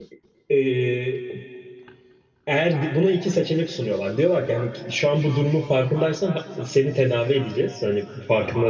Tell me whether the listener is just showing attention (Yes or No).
Yes